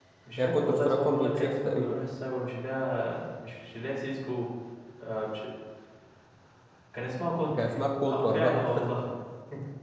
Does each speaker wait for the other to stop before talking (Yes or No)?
No